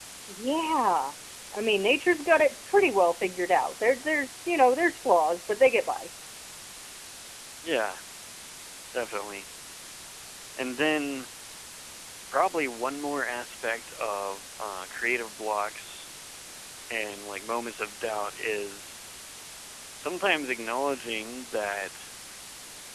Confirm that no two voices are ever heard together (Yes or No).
Yes